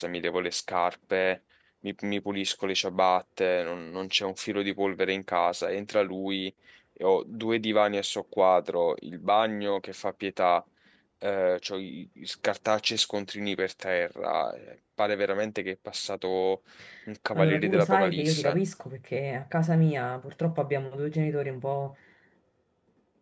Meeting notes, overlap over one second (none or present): present